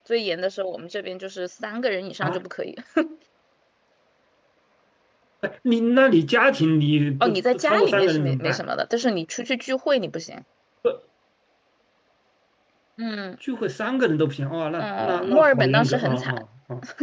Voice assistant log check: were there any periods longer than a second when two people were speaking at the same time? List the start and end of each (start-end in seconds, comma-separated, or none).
7.2-8.6, 14.8-16.4